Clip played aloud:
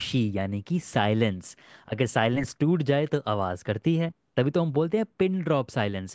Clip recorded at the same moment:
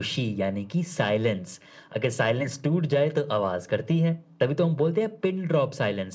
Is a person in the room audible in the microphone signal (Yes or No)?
No